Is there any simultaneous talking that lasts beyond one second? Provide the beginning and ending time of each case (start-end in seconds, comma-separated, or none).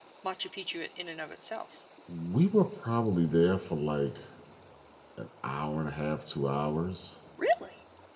none